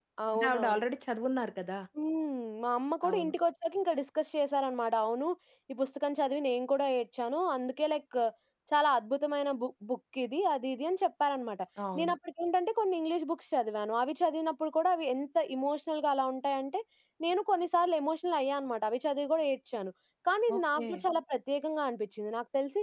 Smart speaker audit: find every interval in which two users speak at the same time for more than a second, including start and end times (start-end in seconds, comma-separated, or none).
none